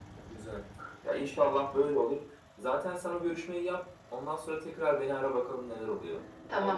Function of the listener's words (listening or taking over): taking over